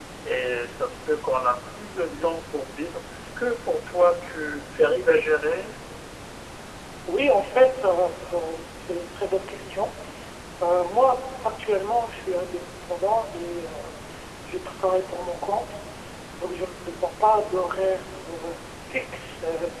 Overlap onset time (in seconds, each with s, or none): none